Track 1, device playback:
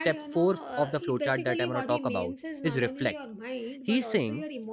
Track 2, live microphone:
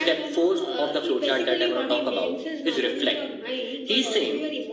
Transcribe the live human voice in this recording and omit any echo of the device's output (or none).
none